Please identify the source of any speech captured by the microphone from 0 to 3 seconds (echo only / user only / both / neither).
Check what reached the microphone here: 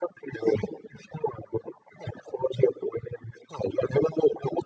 echo only